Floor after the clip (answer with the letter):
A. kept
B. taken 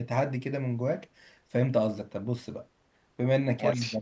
A